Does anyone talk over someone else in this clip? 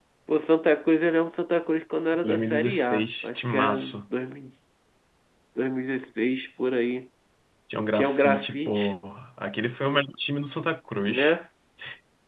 Yes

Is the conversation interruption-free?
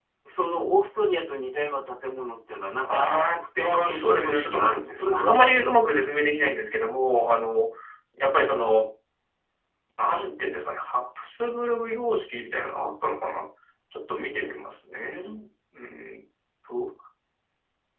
No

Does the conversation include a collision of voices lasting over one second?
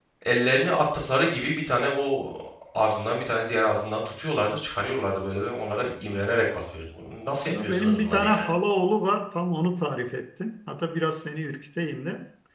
Yes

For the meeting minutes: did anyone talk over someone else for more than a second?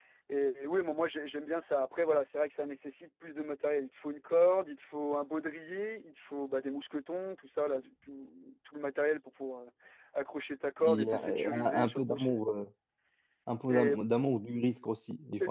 Yes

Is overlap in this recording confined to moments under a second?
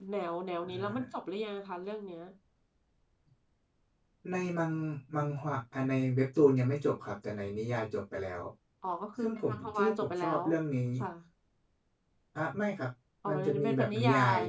No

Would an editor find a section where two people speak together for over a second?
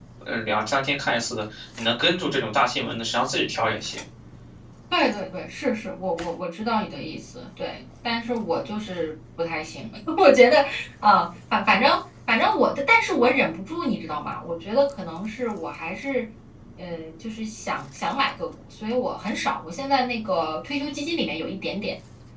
No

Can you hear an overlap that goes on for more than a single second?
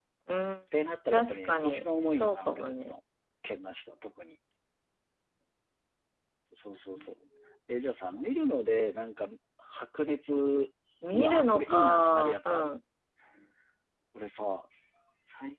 Yes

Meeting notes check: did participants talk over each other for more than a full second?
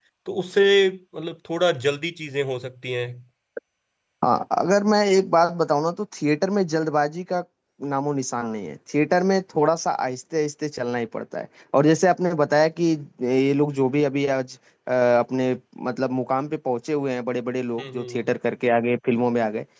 No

